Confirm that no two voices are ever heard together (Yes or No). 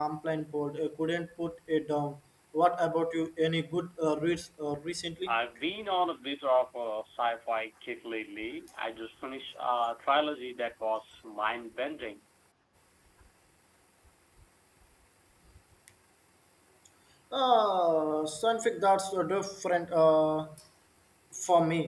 Yes